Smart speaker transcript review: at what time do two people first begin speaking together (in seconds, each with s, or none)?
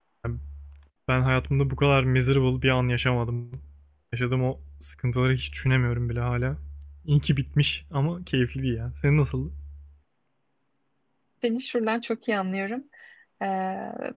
none